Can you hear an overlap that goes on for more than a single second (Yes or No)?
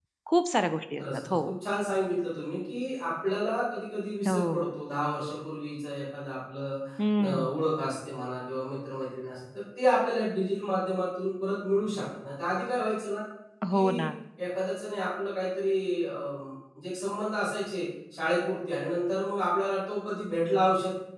No